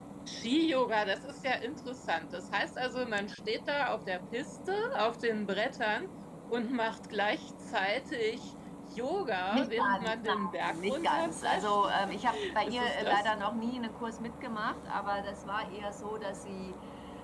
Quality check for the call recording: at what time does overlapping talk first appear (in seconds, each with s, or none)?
9.5 s